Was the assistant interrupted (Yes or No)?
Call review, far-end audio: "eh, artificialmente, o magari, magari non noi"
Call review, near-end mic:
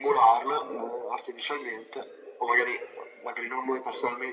No